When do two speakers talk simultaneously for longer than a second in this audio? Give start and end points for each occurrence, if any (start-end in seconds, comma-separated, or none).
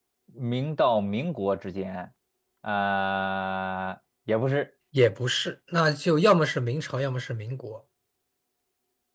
none